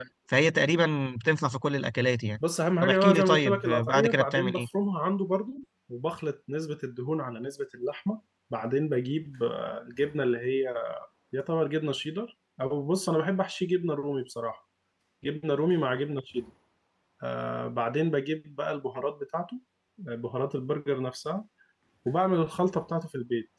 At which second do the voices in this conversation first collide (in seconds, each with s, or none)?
2.8 s